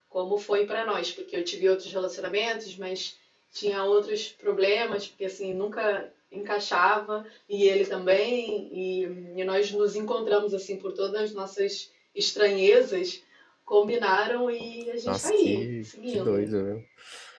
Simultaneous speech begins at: 15.1 s

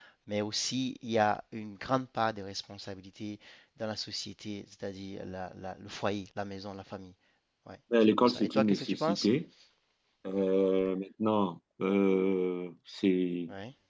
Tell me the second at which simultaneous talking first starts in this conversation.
8.0 s

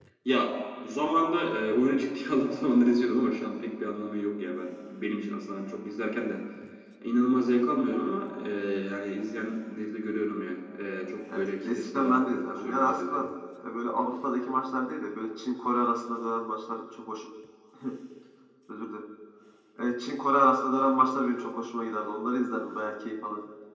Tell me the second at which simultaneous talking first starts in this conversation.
11.3 s

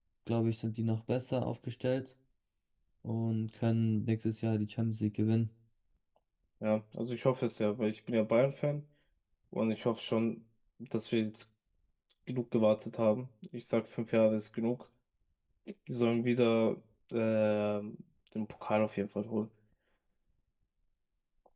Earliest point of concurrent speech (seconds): none

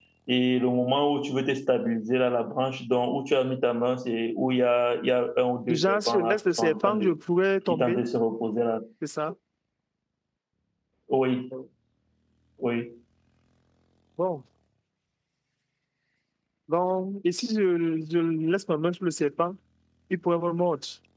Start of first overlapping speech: 5.7 s

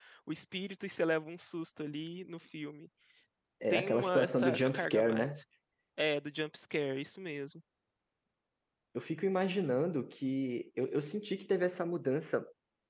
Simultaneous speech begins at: 3.7 s

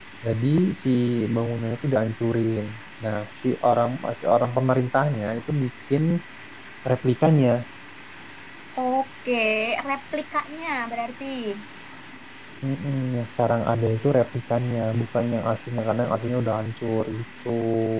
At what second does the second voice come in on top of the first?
none

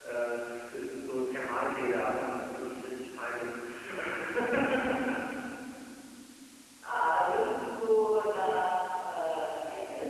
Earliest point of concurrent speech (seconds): none

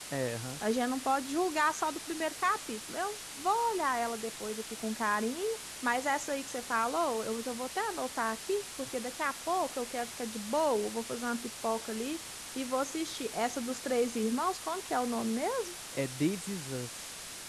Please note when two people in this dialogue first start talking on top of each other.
none

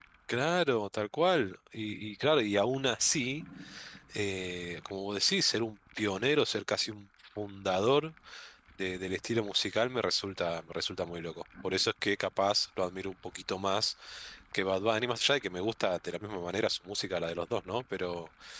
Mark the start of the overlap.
none

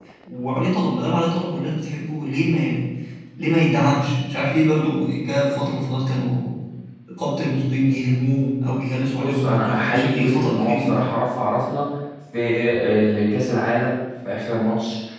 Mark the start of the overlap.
9.2 s

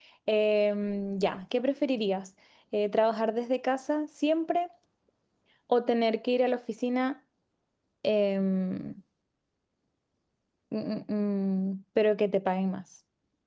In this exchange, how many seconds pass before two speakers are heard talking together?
none

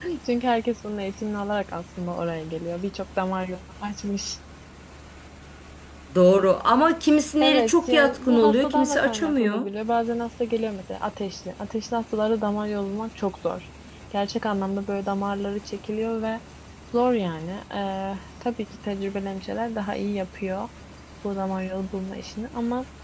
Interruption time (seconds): 7.4 s

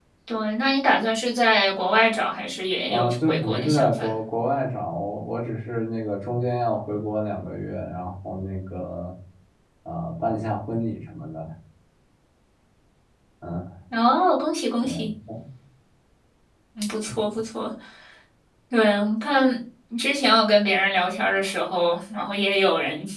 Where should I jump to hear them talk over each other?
2.9 s

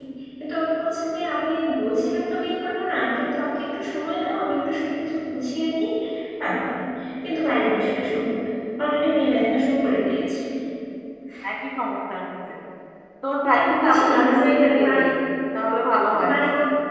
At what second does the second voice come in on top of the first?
13.4 s

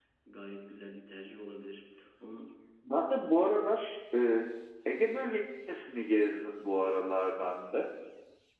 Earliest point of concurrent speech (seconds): none

